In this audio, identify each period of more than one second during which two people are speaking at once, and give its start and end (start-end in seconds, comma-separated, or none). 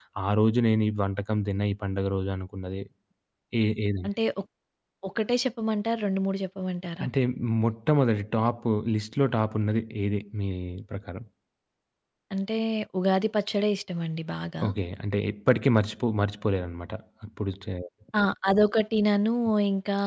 none